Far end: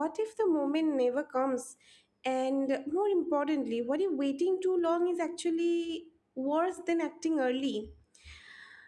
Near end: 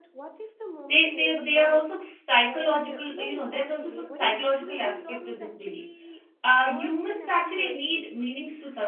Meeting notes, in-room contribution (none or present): present